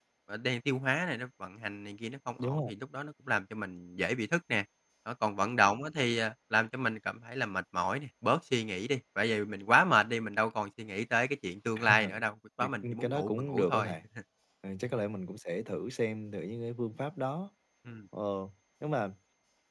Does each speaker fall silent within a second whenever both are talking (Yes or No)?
No